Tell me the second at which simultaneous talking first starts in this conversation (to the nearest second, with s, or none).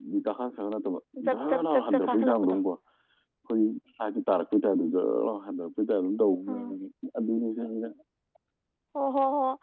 1 s